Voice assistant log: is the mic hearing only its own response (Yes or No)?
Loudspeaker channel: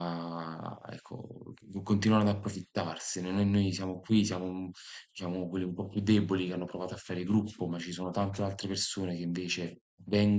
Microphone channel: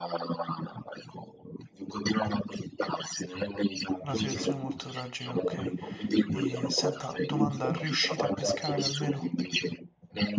No